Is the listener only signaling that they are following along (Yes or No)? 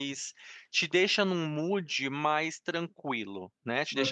Yes